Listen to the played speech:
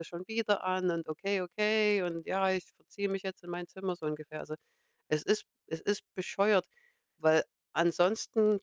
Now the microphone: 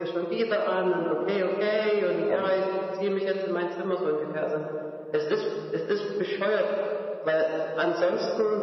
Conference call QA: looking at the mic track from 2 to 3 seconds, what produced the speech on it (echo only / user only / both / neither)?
both